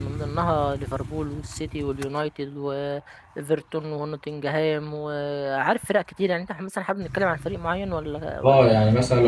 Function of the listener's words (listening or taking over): taking over